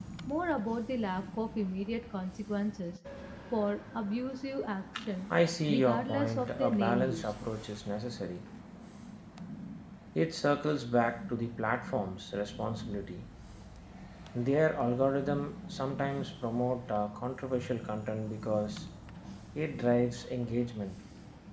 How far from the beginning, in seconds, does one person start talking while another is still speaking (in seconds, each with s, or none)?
5.7 s